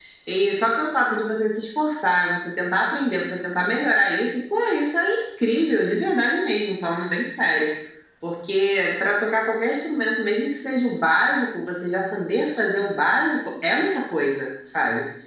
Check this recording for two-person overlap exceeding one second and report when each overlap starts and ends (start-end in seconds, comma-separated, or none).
none